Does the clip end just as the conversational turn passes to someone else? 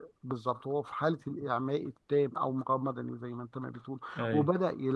No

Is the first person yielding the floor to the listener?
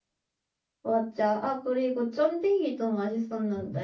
Yes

